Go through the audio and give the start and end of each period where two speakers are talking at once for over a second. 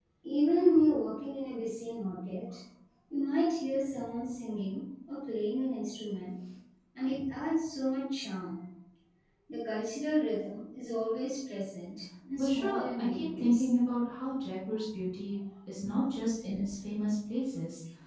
12.3-13.7

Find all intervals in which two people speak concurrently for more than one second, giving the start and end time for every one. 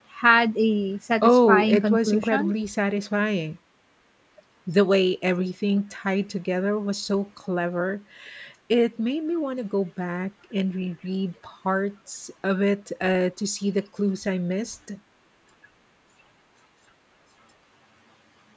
1.2-2.5

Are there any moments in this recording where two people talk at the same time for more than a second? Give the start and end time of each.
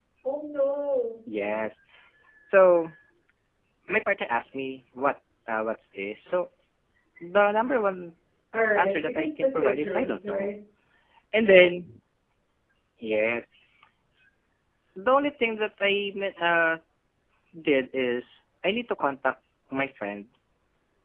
8.8-10.5

